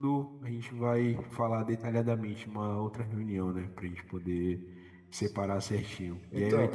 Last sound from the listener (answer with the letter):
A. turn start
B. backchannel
B